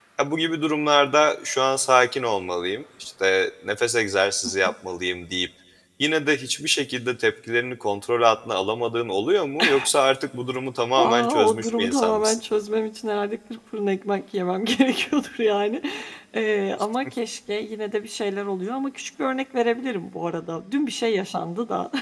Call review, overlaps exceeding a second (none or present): present